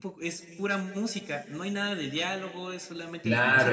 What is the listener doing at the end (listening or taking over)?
taking over